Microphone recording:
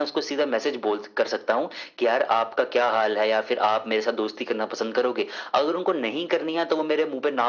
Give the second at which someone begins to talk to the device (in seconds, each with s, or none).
none